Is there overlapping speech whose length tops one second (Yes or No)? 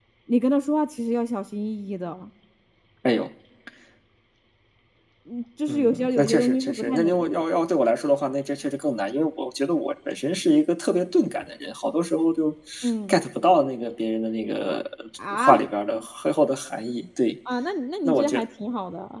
Yes